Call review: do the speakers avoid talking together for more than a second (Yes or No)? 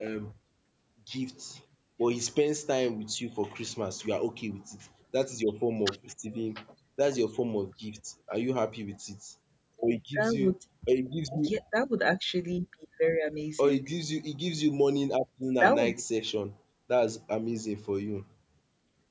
Yes